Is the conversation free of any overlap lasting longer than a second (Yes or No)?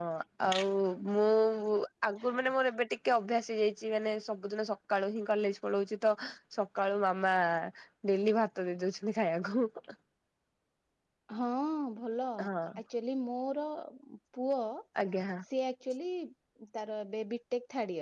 Yes